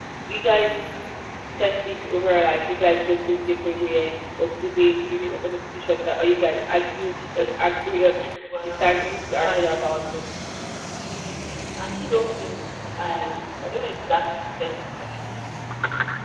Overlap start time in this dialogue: 8.6 s

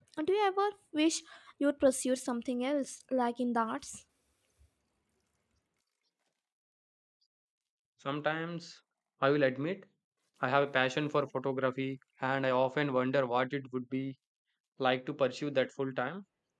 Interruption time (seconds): none

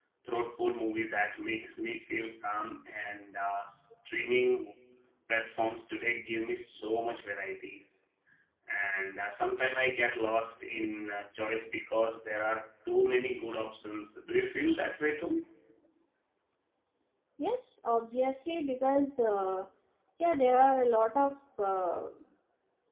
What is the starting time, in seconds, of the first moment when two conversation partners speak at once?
none

